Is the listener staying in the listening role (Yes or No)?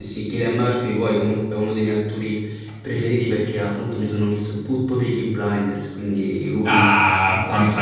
No